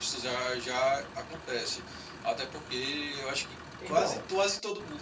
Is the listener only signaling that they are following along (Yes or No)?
Yes